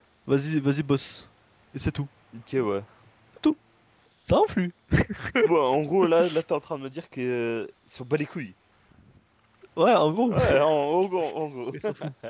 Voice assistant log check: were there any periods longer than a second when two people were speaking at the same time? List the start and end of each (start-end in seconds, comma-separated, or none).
none